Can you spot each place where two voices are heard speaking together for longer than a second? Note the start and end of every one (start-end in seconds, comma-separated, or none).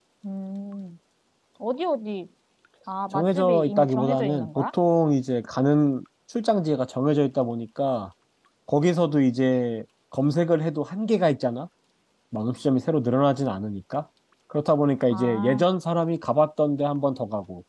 3.1-4.7